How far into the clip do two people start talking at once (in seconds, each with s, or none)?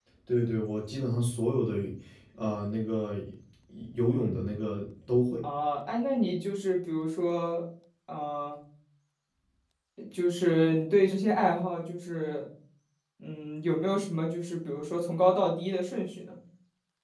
none